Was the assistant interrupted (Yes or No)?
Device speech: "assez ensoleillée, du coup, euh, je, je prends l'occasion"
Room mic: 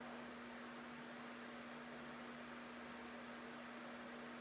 No